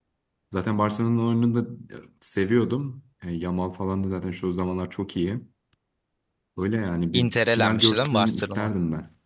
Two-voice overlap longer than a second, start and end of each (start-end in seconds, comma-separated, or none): 7.1-8.7